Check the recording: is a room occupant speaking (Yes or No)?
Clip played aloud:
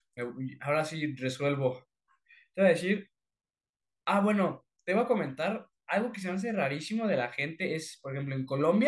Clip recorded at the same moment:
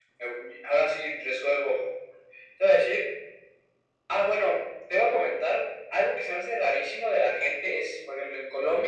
No